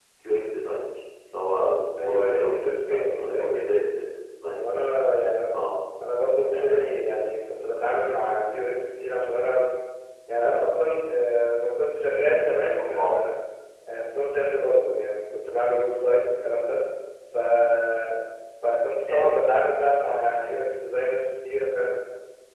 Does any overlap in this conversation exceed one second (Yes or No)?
Yes